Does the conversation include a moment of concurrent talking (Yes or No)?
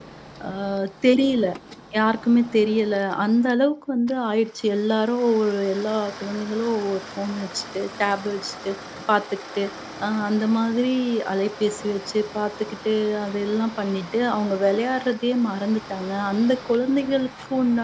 No